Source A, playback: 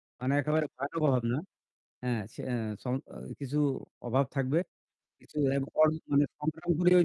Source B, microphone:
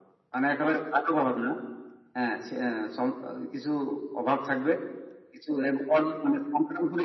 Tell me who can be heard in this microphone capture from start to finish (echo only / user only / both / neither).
echo only